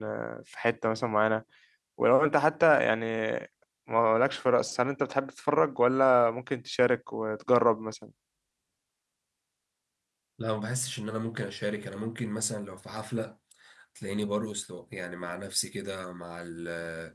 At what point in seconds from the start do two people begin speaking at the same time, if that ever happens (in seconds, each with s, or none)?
none